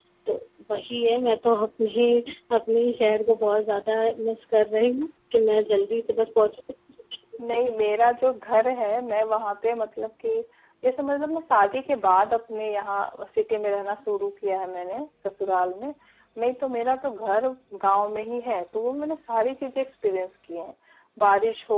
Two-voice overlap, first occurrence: none

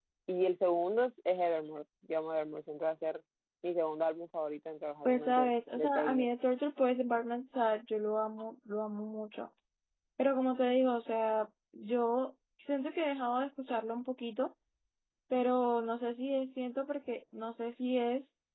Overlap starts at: 5.0 s

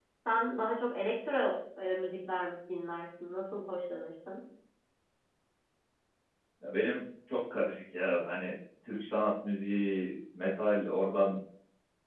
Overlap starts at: none

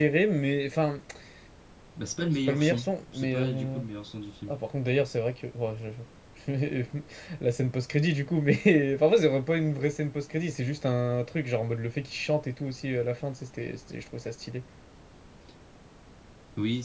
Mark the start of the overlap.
2.5 s

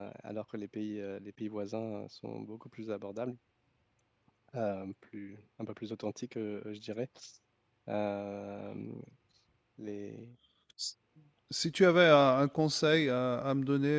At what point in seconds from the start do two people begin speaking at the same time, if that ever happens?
none

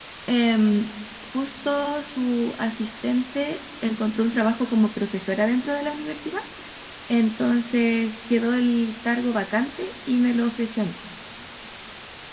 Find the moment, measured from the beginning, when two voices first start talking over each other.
none

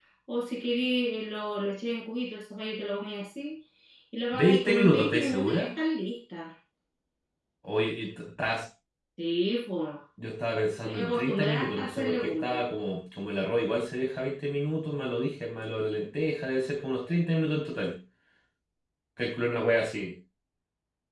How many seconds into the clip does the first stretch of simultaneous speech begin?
4.4 s

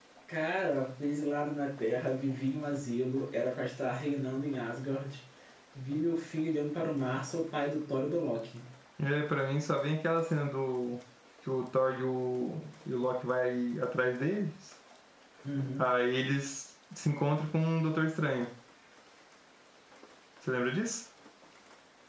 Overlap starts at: none

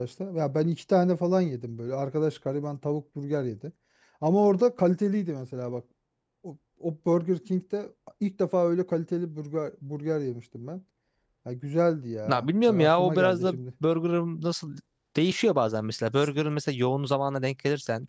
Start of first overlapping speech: 12.2 s

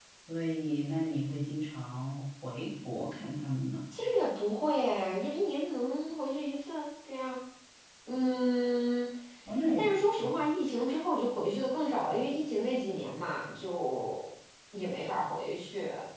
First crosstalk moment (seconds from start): none

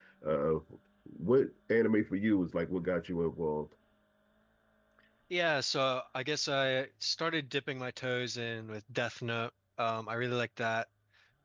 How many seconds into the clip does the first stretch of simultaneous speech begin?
none

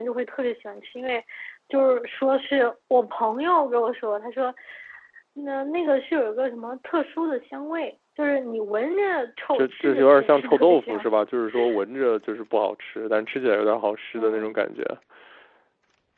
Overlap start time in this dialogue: 9.5 s

